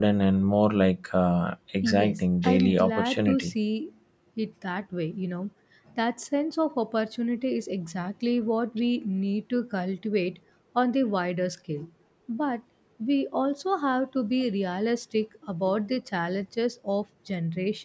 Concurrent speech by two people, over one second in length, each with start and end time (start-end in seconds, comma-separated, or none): 1.8-3.5